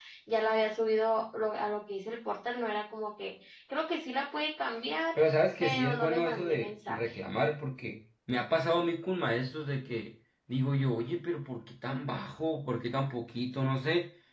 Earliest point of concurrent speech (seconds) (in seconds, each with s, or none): 5.6 s